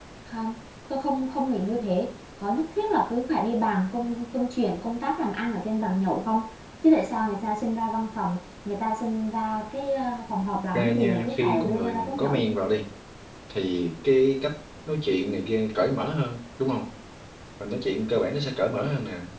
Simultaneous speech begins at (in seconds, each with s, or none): 10.7 s